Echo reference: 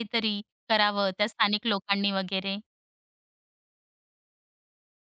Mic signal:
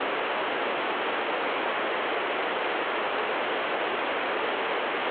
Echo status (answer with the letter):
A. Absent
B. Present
A